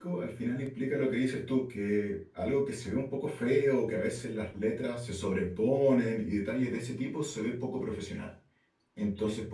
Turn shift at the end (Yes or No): No